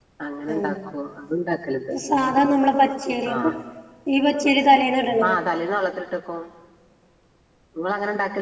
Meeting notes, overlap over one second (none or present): none